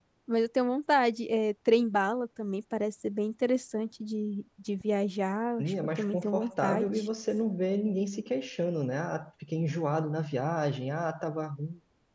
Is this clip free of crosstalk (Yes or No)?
No